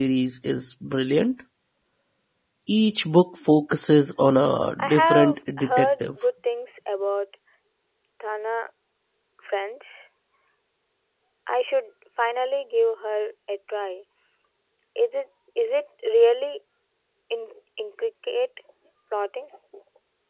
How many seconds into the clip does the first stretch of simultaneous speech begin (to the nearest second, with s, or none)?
5 s